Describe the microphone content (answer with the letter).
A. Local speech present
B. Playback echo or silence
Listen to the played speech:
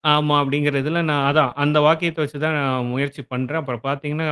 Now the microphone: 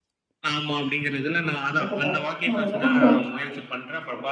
A